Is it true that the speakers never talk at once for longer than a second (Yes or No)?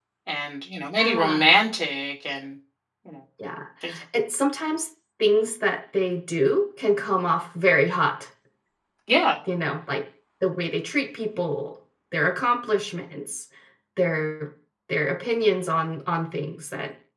Yes